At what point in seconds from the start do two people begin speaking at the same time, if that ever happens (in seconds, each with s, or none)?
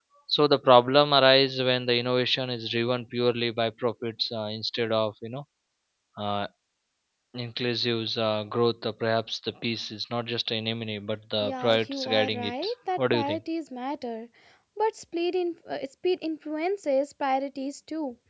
11.4 s